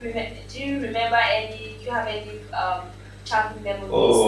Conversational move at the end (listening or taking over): taking over